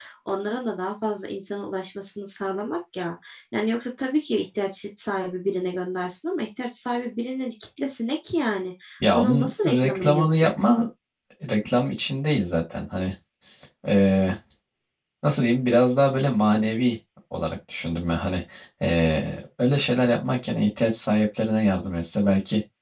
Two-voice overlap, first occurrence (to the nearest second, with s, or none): 9 s